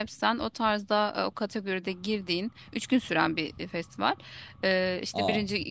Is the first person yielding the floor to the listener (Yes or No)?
No